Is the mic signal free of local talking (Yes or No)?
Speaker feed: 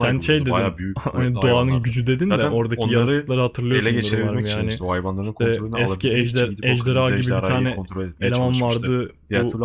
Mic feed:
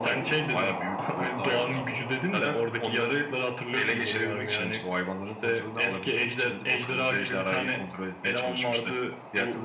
Yes